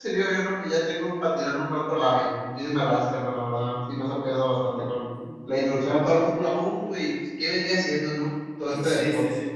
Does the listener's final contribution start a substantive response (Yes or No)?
Yes